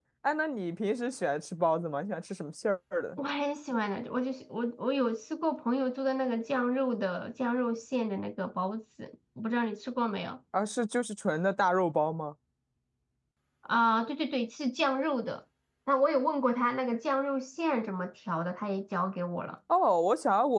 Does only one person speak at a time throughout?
Yes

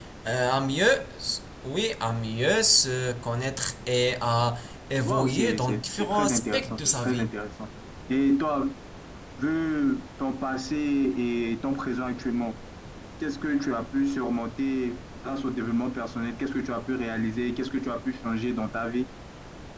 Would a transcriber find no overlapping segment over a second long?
No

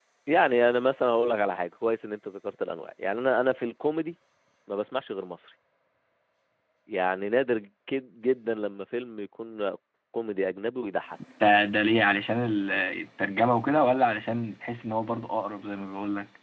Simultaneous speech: No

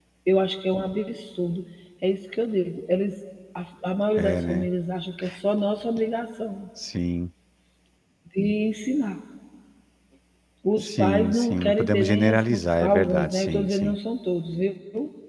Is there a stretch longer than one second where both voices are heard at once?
Yes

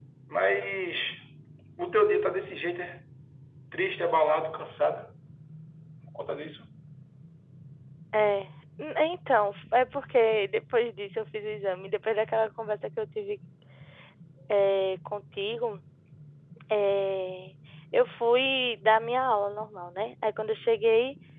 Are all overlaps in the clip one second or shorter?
Yes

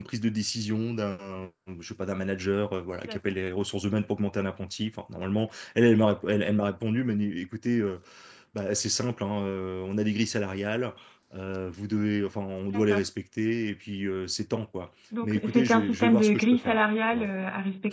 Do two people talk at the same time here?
Yes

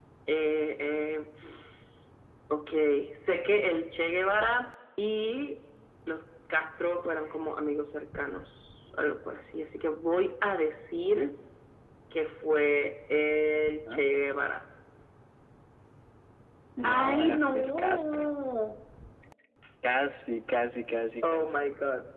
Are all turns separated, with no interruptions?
No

